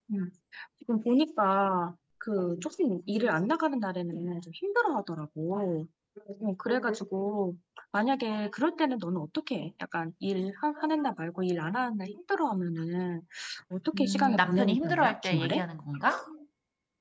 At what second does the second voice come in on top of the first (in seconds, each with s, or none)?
14.0 s